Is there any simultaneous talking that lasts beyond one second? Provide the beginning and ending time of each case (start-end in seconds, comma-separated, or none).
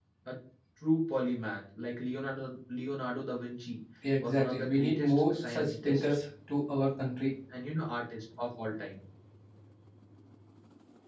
4.2-6.0